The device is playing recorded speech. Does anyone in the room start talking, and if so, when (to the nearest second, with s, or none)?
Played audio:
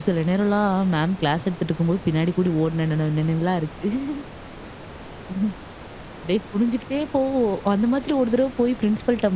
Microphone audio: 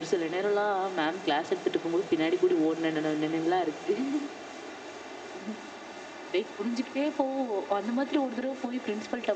none